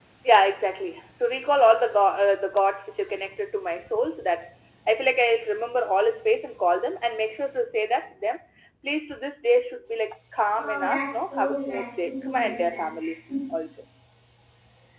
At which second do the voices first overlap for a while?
11 s

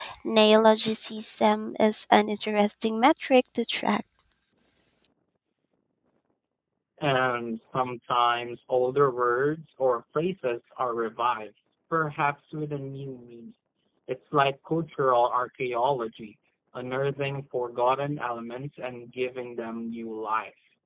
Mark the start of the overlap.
none

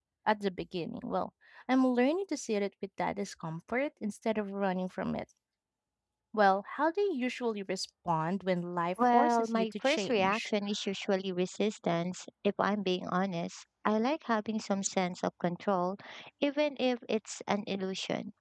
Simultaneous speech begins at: 9 s

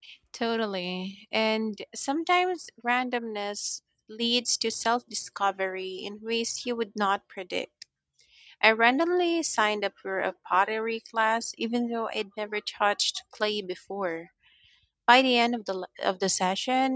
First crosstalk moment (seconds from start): none

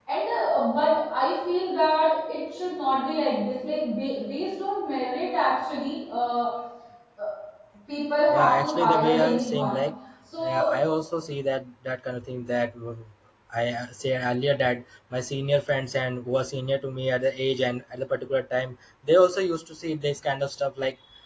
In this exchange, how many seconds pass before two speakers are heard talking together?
8 s

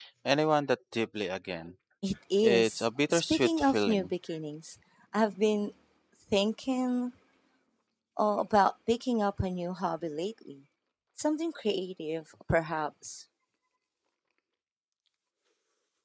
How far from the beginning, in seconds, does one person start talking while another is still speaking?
2 s

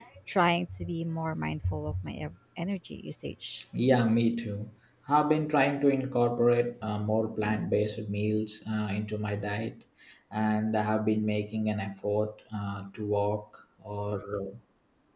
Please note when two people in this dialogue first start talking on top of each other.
none

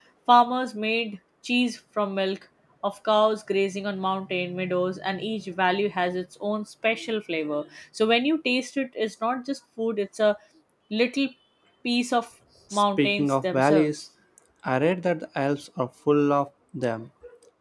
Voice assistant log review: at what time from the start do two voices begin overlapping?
13 s

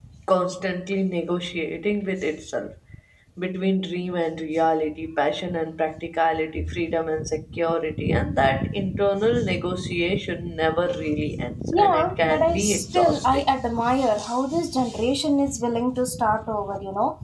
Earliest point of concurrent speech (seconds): 12 s

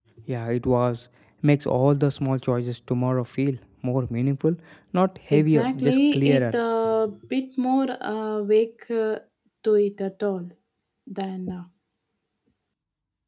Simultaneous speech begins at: 5 s

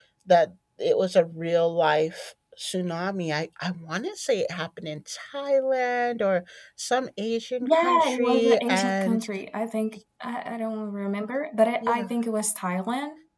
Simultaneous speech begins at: 8 s

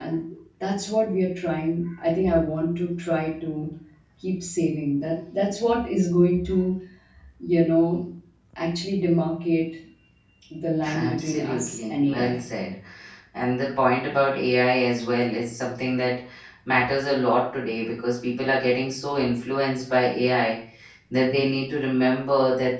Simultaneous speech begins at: 11 s

